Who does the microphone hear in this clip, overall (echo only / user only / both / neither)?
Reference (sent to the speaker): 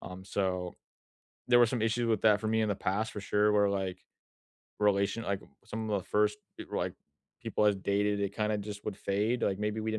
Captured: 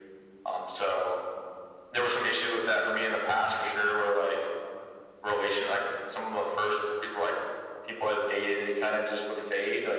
echo only